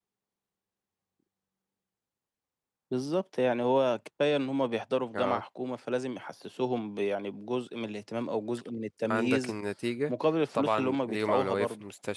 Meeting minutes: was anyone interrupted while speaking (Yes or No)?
Yes